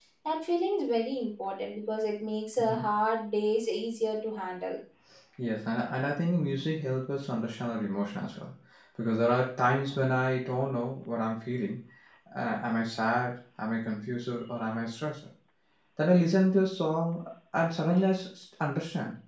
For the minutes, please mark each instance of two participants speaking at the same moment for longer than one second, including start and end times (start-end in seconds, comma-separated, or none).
none